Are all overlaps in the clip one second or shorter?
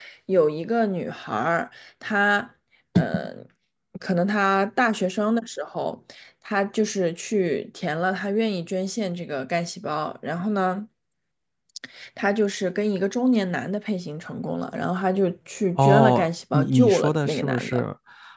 No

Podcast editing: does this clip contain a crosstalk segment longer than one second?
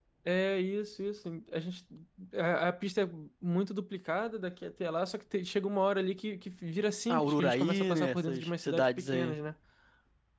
Yes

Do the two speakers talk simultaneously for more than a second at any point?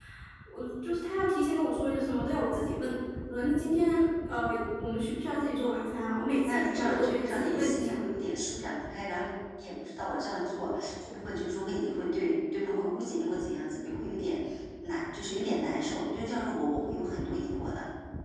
Yes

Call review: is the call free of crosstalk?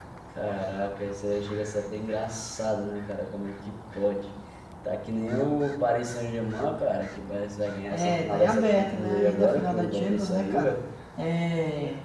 No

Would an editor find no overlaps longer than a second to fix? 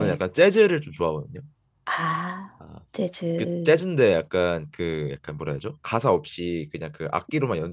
Yes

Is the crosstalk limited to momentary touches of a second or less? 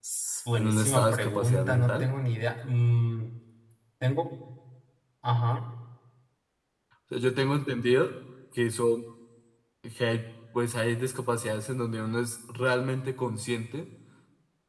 No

